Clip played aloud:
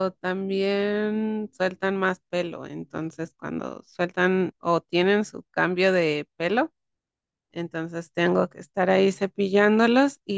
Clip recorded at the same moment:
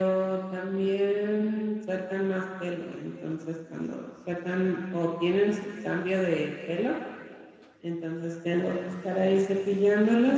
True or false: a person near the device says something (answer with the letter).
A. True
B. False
B